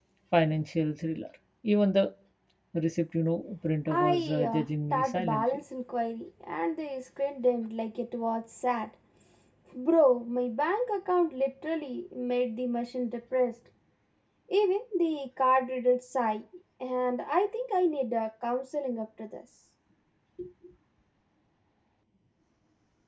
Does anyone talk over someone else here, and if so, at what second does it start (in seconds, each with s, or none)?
3.9 s